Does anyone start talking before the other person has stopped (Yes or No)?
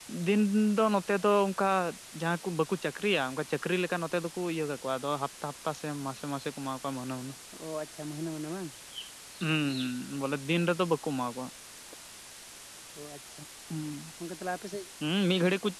No